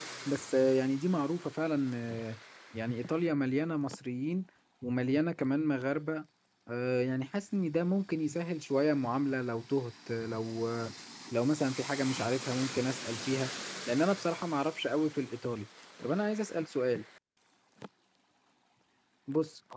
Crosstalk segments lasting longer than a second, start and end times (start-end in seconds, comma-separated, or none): none